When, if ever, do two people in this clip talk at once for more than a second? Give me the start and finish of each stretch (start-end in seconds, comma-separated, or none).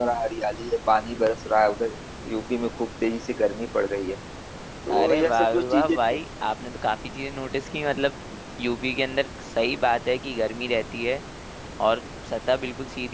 4.9-6.2